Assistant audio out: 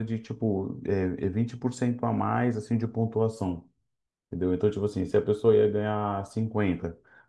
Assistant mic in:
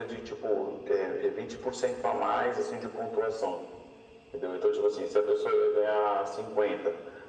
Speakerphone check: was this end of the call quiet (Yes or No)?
Yes